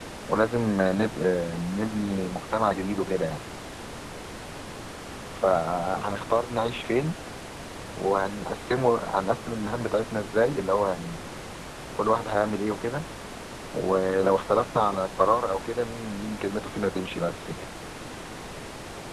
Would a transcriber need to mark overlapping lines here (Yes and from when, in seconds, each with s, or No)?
No